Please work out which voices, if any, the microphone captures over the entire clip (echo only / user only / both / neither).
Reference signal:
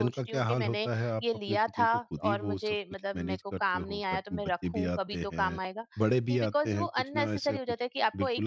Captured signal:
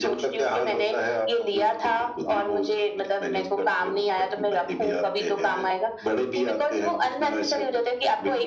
echo only